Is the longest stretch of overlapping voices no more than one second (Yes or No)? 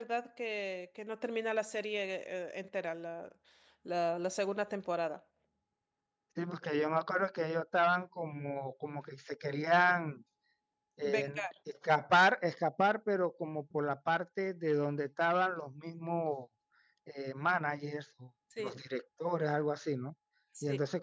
Yes